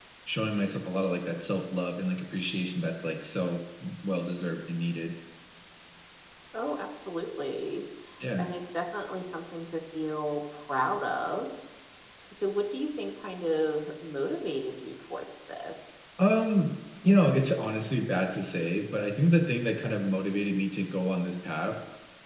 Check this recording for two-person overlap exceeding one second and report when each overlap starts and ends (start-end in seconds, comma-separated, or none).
none